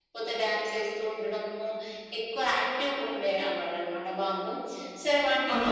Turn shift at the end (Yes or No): No